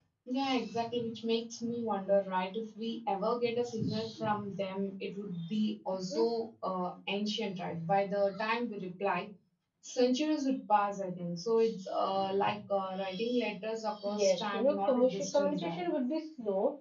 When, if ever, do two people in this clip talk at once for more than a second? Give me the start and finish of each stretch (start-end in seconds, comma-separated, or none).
14.2-15.8